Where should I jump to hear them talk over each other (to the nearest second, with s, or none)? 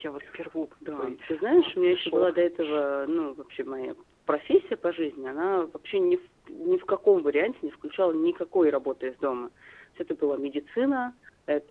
1 s